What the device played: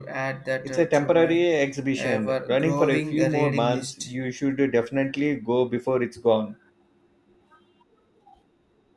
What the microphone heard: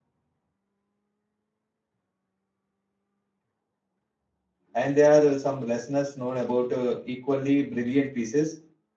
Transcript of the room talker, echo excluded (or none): and there are uh, some listeners known about uh, equally brilliant pieces.